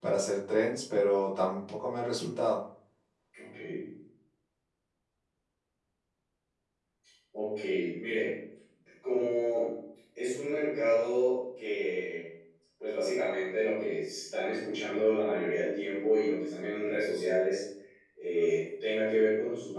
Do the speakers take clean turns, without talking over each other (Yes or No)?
Yes